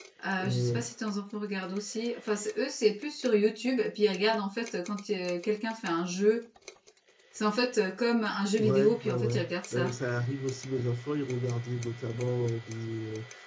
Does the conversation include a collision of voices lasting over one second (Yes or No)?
Yes